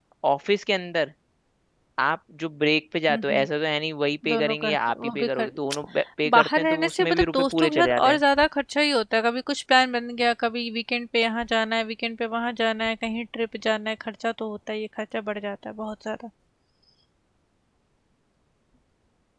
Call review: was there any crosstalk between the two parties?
Yes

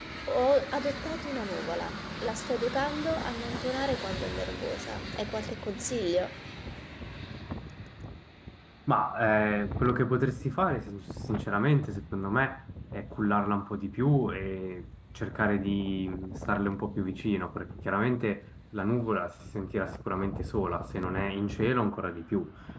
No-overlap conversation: Yes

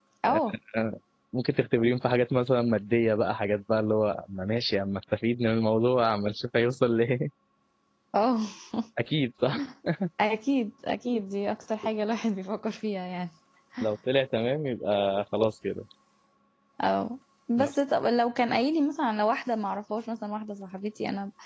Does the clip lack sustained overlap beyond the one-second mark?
Yes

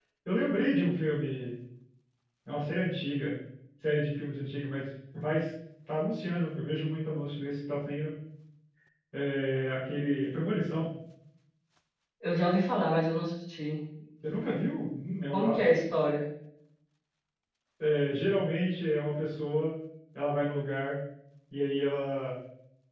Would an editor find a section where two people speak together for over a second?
No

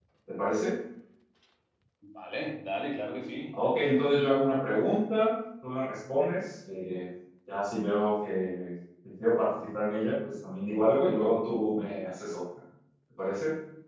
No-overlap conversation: Yes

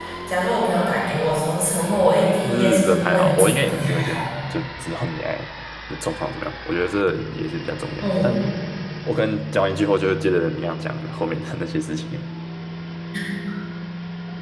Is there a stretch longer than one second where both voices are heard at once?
Yes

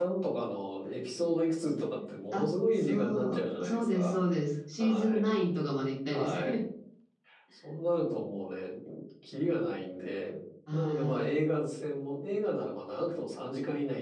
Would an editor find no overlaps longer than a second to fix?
No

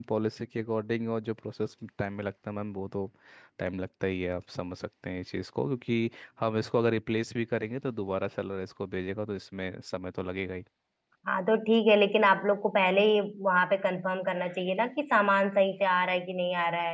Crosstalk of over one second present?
No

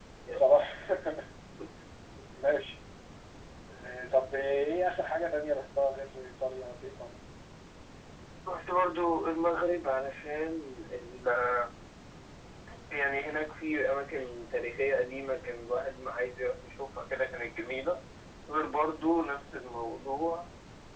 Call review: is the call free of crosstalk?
Yes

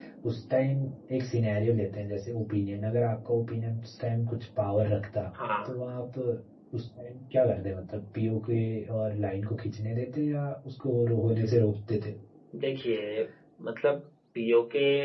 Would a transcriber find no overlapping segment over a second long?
Yes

